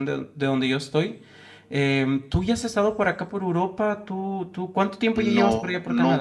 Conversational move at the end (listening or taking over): taking over